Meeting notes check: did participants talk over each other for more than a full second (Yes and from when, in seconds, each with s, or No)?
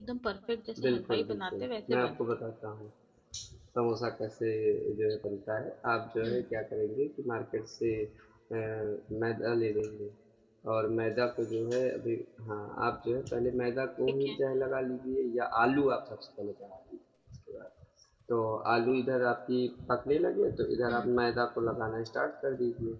Yes, from 0.8 s